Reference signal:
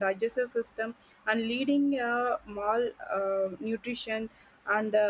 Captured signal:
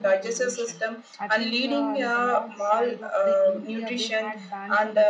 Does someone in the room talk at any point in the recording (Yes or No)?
Yes